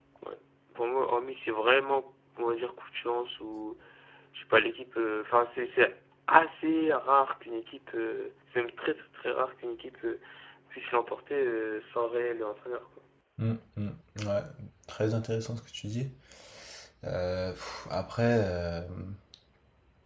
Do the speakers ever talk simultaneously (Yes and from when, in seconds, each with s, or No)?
No